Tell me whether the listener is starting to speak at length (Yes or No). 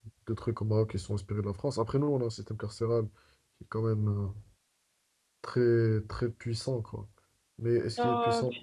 Yes